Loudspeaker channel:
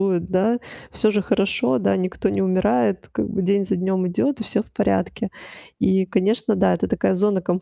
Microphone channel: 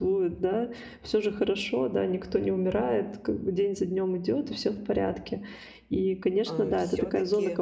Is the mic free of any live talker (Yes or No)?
No